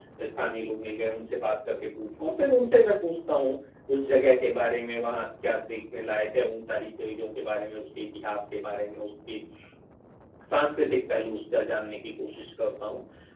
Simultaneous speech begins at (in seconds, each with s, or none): none